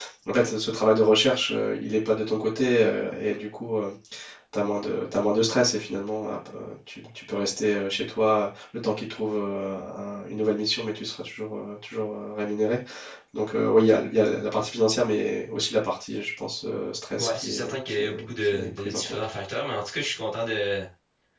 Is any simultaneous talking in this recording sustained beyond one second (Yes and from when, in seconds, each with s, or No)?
Yes, from 17.2 s